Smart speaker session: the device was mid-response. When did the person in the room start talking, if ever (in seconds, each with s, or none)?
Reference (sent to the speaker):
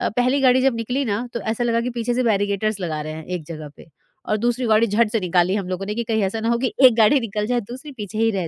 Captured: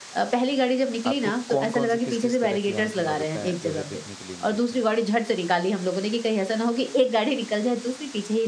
1.1 s